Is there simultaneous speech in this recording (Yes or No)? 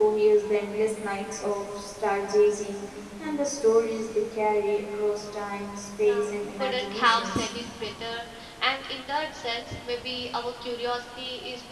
Yes